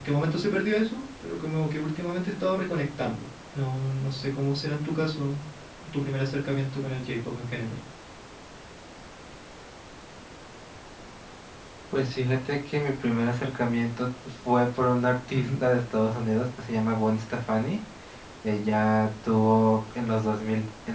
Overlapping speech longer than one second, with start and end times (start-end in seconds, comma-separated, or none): none